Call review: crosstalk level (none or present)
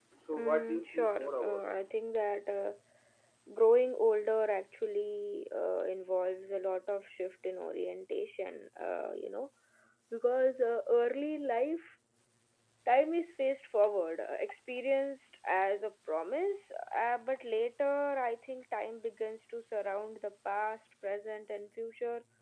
present